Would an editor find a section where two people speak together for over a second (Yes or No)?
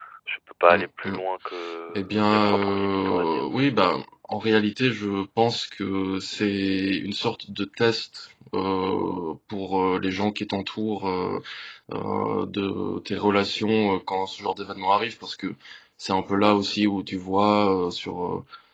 Yes